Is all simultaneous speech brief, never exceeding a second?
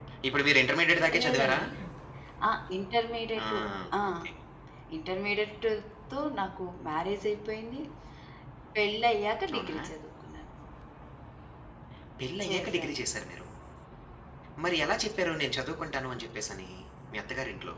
Yes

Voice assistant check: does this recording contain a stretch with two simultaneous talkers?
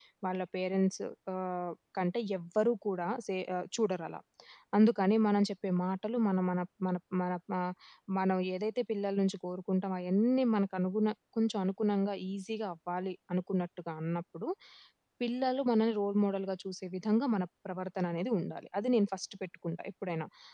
No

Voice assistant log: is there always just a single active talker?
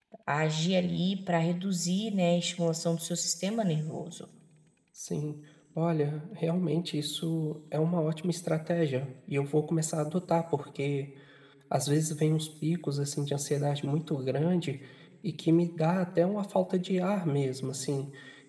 Yes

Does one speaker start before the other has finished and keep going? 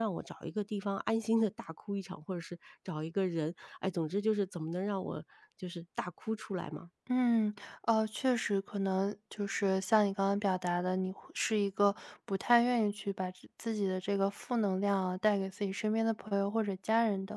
No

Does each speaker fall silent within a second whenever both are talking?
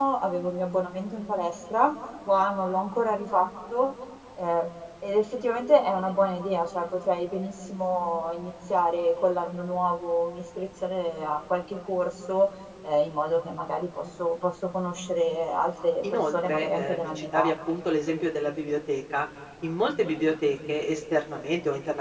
No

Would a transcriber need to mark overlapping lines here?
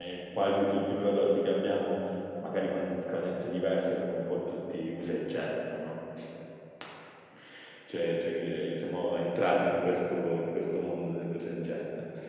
No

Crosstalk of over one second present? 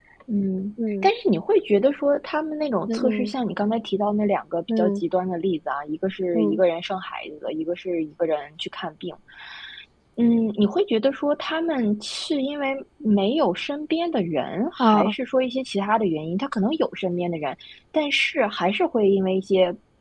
No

